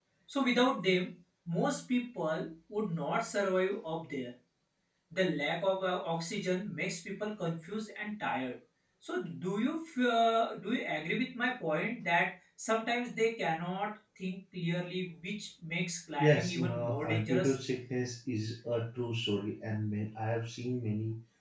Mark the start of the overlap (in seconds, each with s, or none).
16.2 s